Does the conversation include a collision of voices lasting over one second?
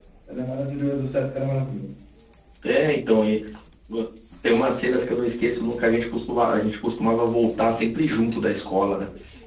No

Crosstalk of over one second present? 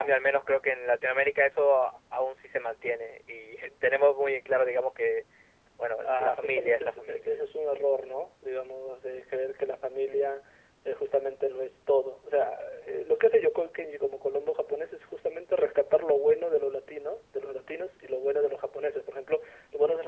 Yes, from 6.0 s

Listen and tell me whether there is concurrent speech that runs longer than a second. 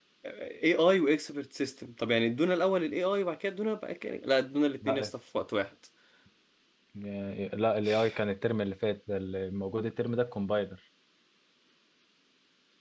No

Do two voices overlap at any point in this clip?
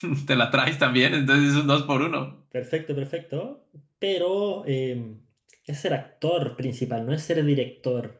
No

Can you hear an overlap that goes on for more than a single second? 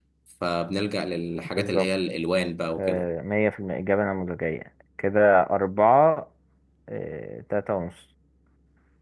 No

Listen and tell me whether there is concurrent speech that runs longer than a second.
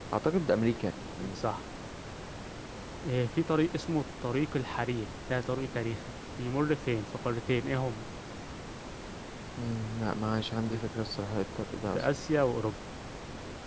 No

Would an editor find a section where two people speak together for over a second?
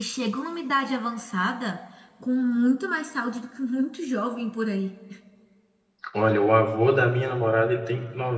No

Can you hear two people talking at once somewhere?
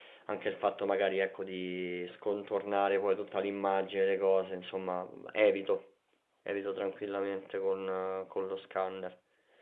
No

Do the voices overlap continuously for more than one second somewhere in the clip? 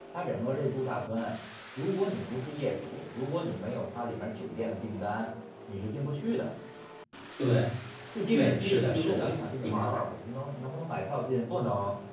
Yes, from 8.3 s

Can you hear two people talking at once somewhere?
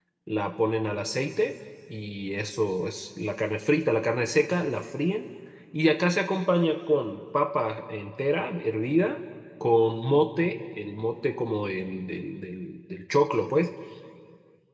No

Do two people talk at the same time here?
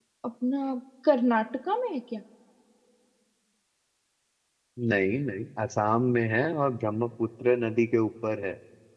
No

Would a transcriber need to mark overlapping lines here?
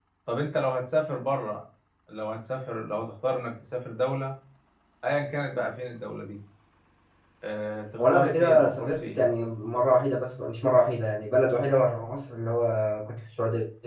Yes, from 8.0 s

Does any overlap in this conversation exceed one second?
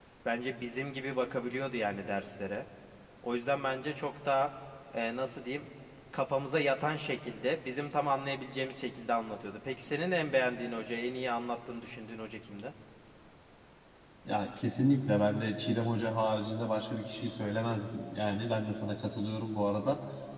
No

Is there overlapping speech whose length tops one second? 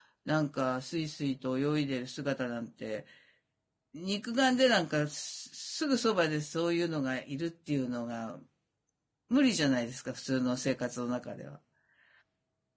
No

